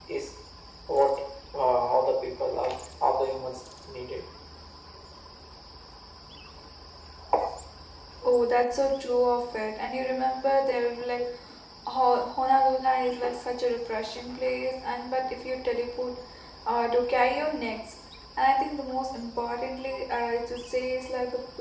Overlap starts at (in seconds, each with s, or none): none